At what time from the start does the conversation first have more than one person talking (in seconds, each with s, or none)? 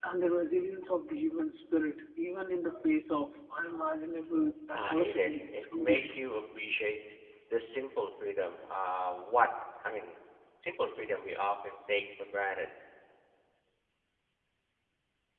4.7 s